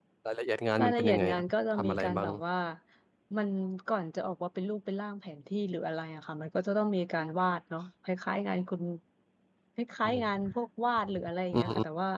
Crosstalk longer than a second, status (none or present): present